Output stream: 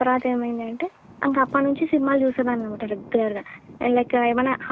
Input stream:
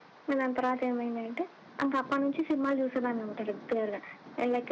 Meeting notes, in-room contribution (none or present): none